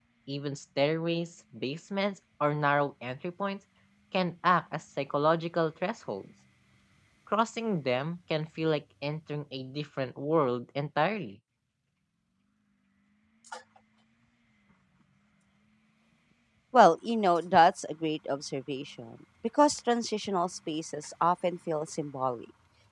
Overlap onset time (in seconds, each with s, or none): none